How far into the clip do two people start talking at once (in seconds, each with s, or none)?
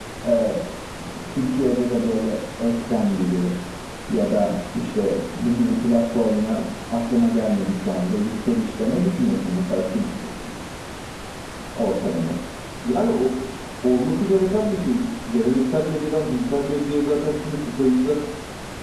none